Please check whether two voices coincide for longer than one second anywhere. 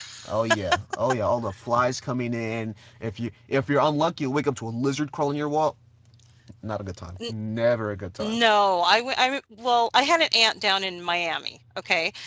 No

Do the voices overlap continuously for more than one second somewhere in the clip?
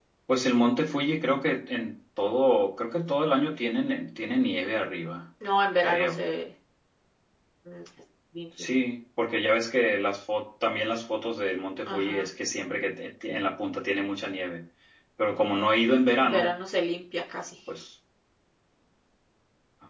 No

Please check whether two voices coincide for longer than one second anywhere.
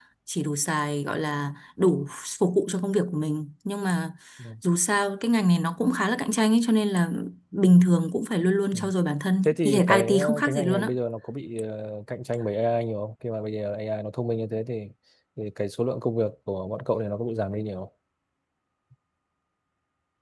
Yes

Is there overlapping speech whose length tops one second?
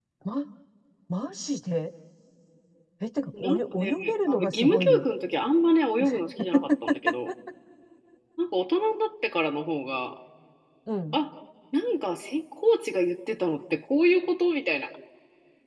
Yes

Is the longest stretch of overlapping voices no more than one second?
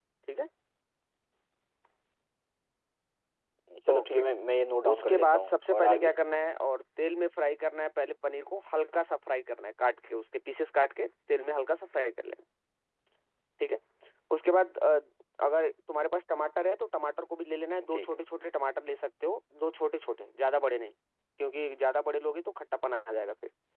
No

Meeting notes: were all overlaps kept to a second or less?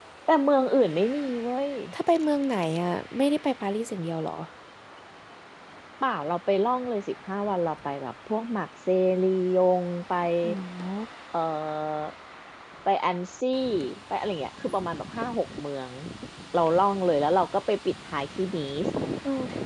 Yes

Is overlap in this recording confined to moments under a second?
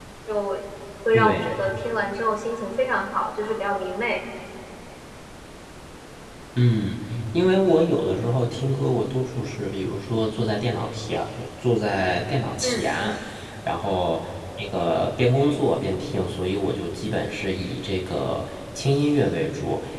Yes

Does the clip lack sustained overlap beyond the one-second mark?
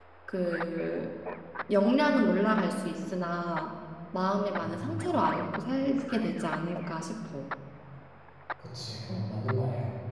Yes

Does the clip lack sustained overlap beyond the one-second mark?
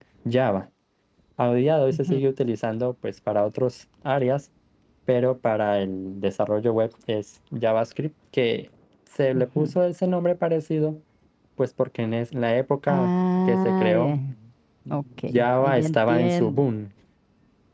No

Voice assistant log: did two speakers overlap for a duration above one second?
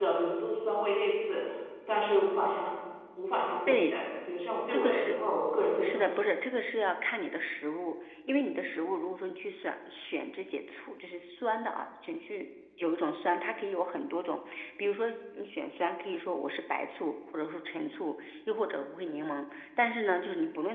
No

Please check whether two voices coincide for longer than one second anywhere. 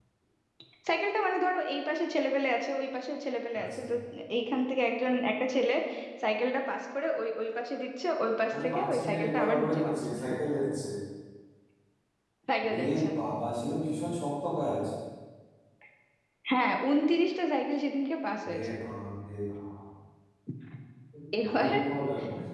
Yes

